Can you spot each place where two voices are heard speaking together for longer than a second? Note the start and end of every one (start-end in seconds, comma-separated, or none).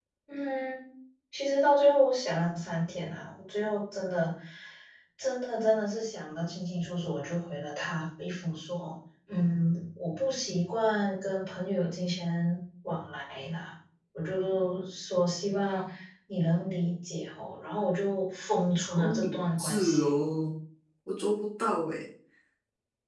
18.9-20.1